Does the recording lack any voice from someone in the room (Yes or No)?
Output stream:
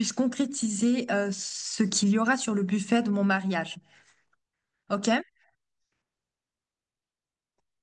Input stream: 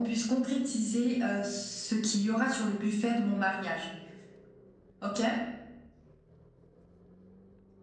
Yes